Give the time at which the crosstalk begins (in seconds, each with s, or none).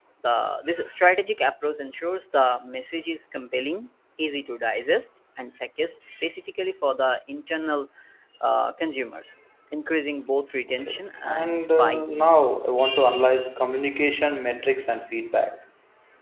10.7 s